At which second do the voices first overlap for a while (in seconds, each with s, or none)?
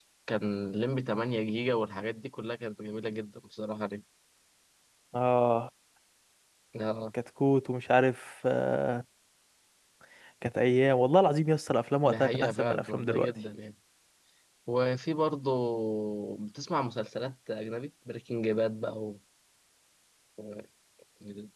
12.0 s